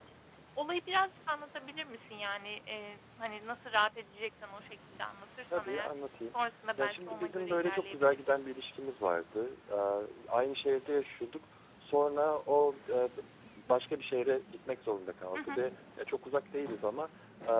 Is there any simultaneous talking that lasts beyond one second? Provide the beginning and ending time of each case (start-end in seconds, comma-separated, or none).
6.8-8.2